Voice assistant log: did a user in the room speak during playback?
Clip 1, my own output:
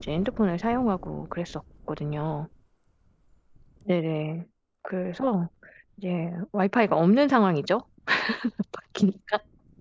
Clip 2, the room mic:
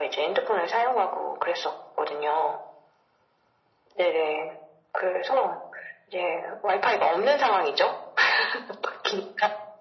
No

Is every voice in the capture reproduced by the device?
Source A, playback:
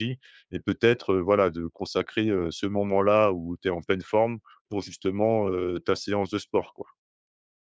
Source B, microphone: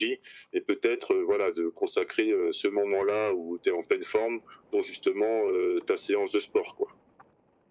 Yes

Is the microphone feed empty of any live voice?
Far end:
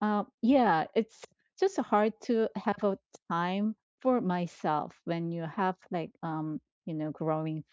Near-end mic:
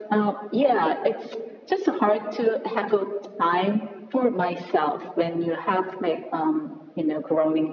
Yes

